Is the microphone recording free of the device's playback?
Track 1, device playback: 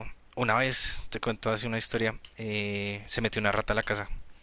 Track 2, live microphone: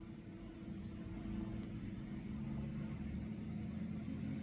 Yes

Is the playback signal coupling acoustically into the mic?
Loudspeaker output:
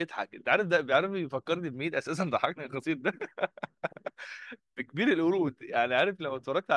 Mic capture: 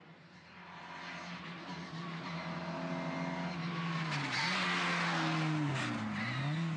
No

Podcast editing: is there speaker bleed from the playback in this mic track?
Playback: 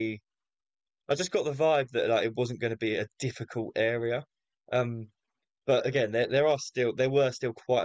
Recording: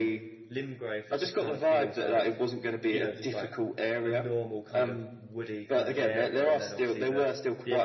Yes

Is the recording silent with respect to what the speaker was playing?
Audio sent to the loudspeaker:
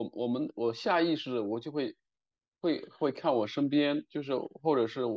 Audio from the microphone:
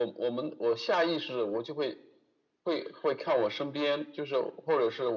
No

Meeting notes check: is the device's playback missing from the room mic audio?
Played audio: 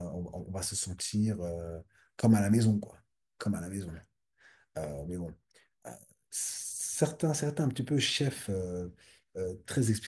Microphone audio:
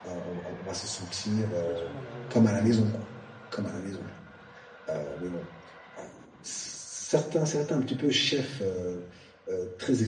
No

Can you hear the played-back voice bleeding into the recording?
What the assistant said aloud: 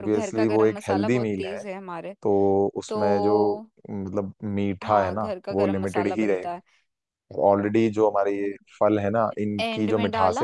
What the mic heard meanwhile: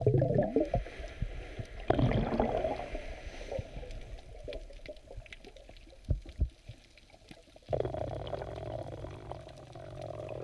No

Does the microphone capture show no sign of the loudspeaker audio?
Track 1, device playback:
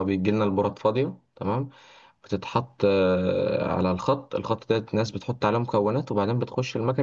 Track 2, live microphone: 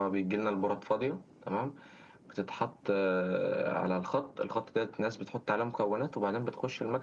No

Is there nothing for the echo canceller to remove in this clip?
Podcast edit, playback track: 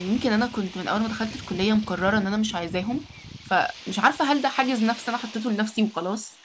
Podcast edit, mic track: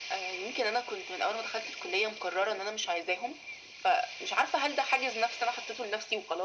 No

